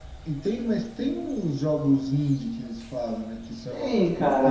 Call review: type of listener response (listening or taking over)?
taking over